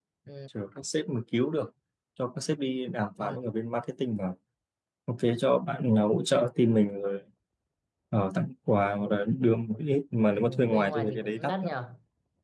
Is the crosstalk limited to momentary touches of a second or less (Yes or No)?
No